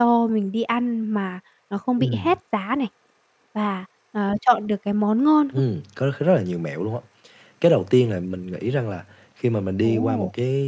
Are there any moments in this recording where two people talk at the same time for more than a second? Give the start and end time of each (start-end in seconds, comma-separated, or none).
none